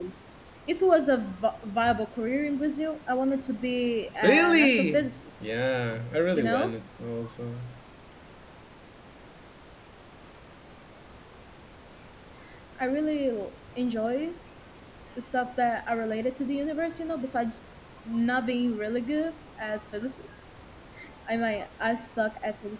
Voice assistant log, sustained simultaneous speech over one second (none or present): present